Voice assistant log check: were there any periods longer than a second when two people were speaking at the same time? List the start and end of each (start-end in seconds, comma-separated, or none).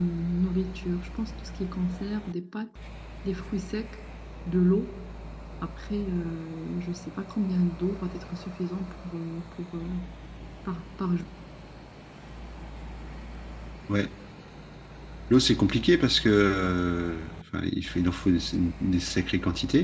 none